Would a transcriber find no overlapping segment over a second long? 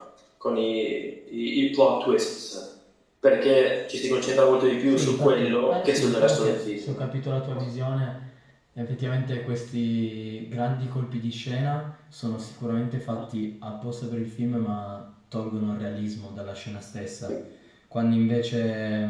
No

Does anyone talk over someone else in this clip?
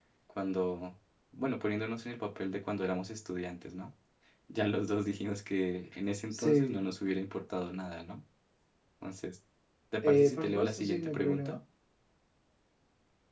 Yes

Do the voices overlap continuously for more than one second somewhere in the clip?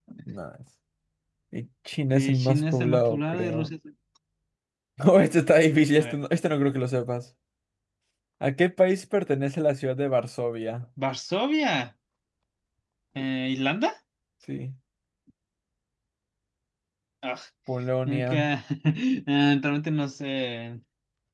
Yes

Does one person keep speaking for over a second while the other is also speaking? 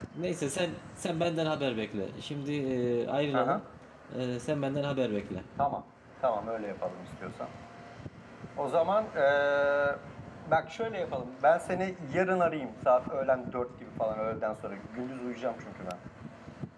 No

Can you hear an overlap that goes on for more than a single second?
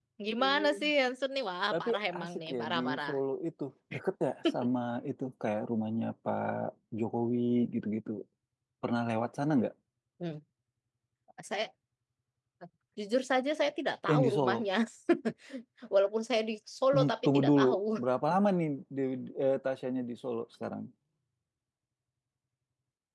Yes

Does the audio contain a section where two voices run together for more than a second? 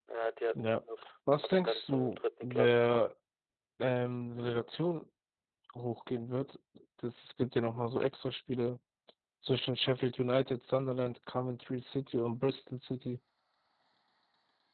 Yes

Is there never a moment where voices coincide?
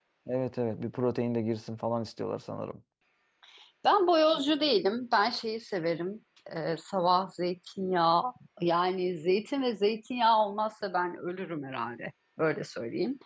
Yes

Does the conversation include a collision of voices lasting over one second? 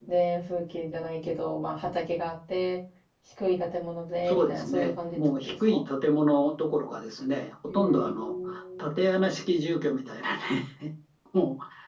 Yes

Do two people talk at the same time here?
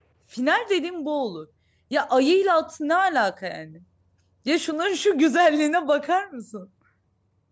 No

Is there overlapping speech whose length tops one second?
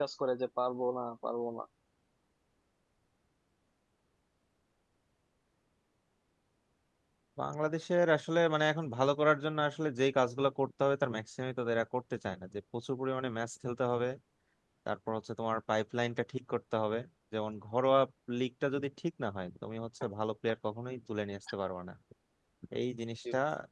No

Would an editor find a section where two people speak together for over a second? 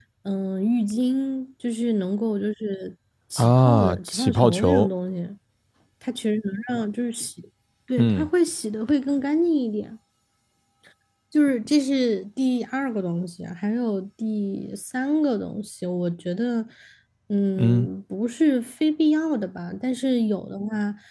Yes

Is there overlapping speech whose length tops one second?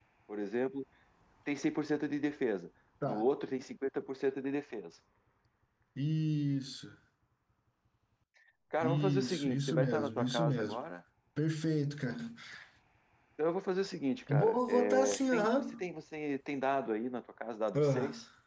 Yes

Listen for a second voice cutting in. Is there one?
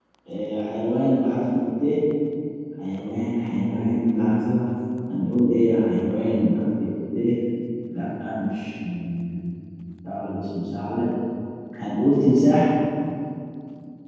No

